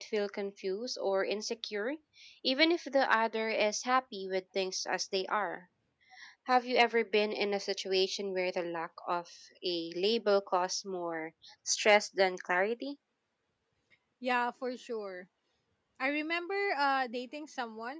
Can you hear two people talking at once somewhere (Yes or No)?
No